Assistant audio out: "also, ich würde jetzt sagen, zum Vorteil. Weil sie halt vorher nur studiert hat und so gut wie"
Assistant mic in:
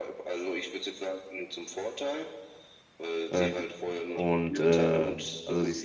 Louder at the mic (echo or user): user